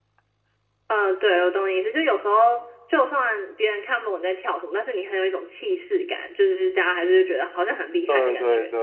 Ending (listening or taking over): taking over